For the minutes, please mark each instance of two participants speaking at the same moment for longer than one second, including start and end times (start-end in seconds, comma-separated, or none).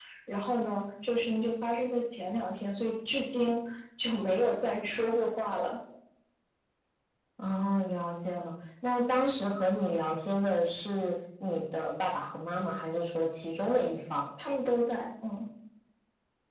none